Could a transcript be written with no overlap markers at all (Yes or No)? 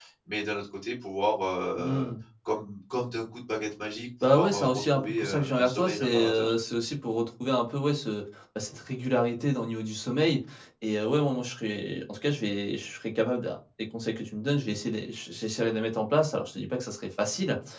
No